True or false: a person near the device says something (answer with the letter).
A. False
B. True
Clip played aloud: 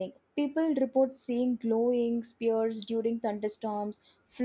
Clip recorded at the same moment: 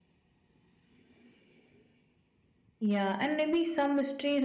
B